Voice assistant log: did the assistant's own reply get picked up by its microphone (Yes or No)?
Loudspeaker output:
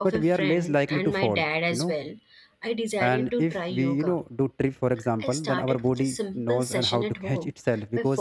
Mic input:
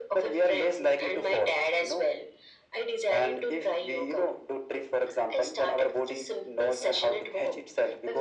Yes